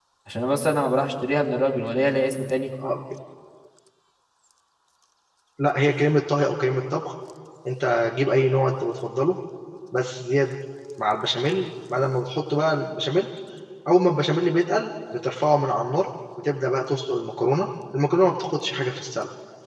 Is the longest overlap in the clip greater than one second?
No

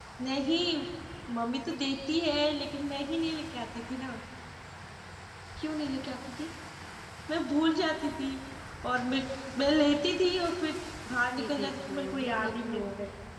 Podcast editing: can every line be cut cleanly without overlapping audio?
No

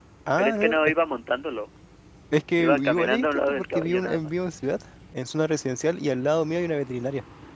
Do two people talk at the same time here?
Yes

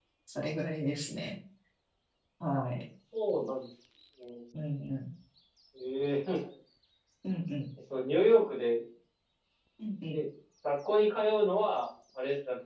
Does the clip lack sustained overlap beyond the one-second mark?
Yes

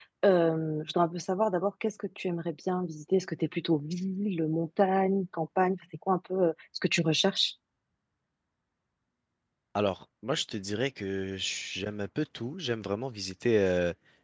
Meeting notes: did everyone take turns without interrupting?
Yes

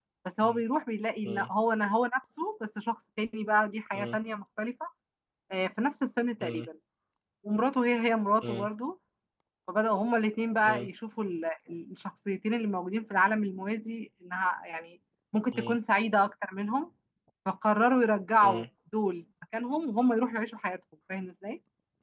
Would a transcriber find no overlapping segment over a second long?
Yes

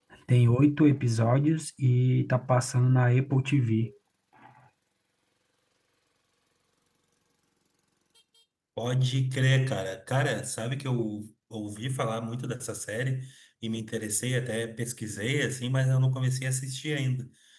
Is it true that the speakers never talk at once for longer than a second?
Yes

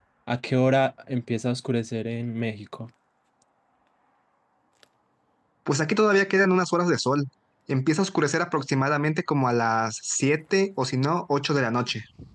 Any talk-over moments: No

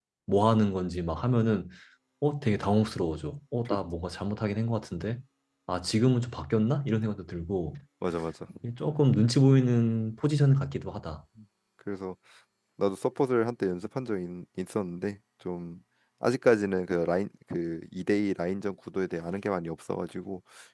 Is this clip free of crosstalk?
Yes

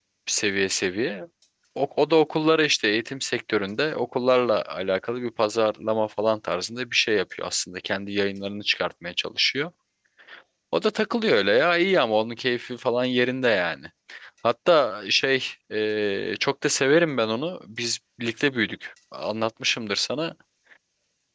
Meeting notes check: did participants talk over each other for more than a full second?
No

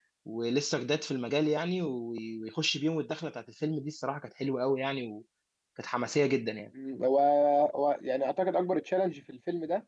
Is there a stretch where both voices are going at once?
No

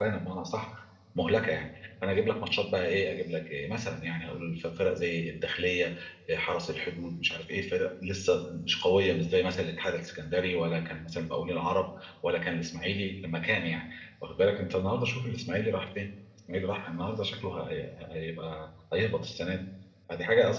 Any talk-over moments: No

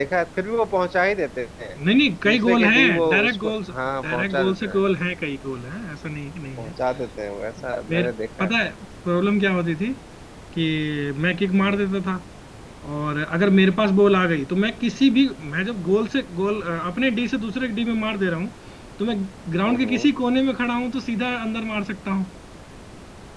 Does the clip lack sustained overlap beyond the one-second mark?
No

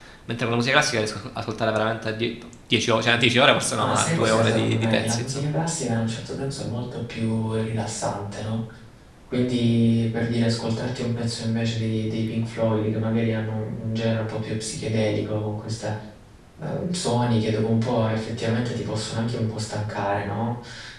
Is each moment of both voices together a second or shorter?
No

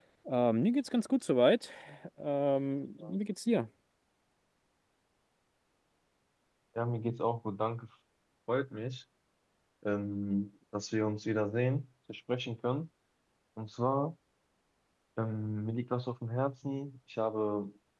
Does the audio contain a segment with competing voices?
No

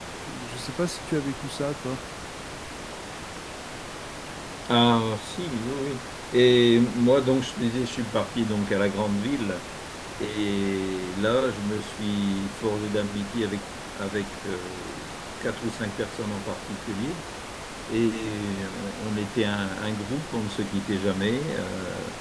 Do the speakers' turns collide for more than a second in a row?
No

